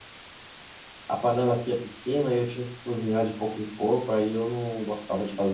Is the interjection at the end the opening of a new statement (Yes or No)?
Yes